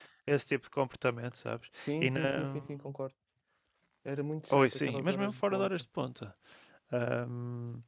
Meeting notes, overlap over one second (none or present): present